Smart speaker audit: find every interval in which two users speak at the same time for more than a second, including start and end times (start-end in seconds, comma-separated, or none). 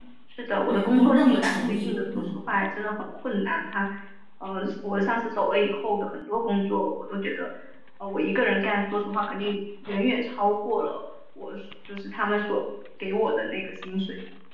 0.7-2.3